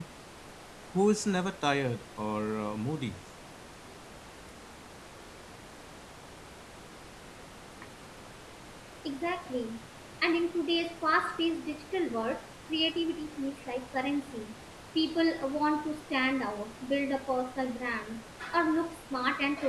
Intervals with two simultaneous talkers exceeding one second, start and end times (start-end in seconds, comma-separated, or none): none